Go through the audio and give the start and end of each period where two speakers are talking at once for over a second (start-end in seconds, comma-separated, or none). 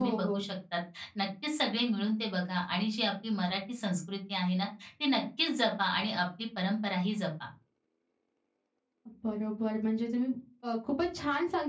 none